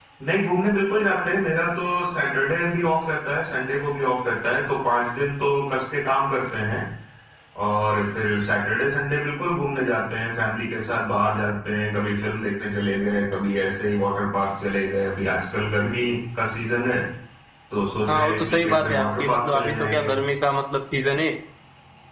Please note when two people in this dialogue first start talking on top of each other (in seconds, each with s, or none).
18.1 s